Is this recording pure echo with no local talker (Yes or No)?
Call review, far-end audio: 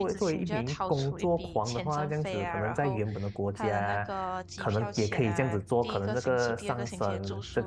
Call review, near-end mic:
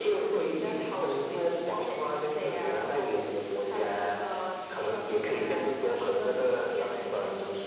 Yes